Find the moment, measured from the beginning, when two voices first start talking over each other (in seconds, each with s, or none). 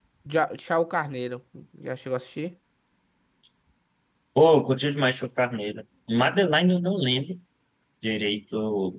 none